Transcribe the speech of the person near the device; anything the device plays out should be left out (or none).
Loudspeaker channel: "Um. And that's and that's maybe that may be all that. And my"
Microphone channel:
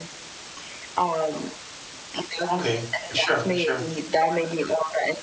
Okay, for sure, for sure.